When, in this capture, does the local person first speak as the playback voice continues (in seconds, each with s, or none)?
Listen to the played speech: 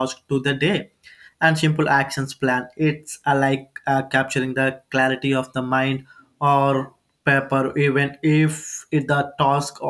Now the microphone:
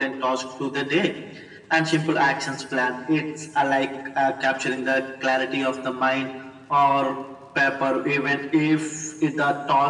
none